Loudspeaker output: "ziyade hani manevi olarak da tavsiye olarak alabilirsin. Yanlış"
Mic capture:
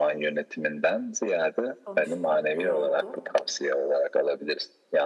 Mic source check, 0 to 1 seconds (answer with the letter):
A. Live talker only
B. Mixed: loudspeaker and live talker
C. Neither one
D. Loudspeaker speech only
D